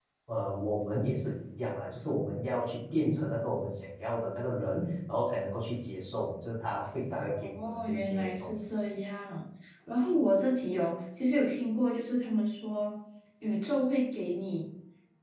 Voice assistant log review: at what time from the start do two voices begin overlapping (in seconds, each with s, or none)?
7.3 s